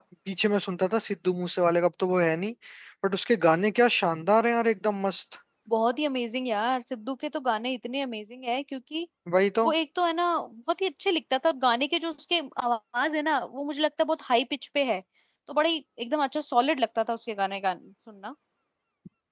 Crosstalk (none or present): none